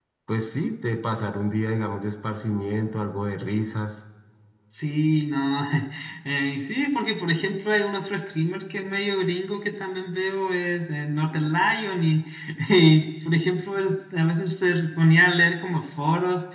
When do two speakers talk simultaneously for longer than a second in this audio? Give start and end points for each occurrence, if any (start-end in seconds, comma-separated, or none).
none